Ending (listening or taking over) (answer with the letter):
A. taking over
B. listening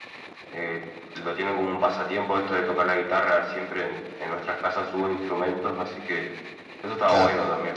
A